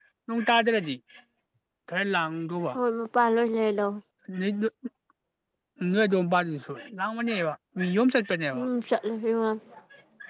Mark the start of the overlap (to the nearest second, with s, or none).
none